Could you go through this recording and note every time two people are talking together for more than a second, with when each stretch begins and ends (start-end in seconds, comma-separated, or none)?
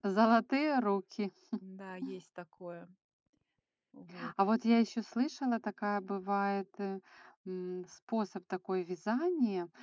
none